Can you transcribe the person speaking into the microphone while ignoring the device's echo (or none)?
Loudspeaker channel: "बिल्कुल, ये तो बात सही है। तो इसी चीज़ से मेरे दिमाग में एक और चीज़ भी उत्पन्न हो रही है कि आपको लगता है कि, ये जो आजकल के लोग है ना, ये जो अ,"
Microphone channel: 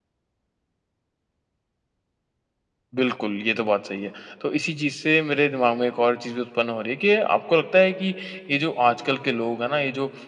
none